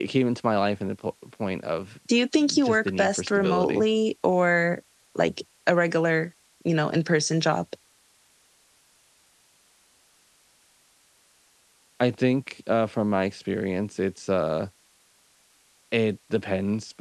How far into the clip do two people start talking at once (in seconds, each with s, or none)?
2.6 s